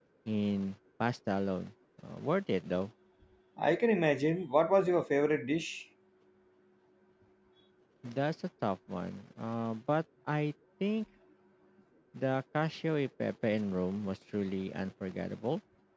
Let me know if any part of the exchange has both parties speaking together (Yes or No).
No